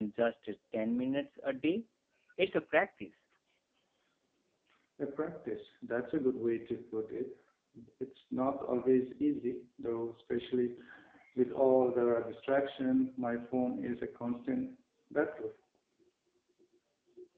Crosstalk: none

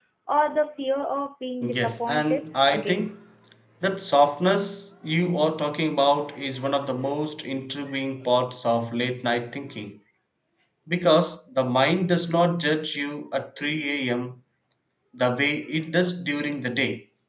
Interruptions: present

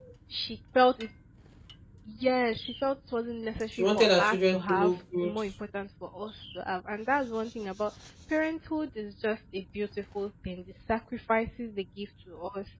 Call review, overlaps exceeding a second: present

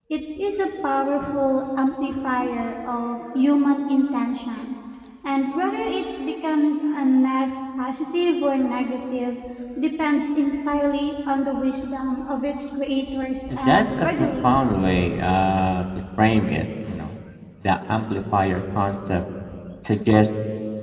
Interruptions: present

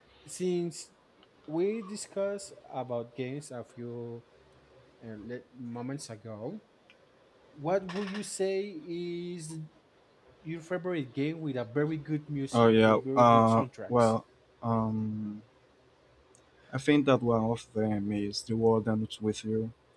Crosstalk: present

